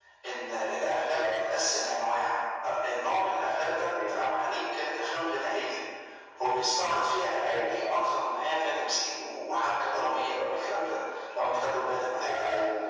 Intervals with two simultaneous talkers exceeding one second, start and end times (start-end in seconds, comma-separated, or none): none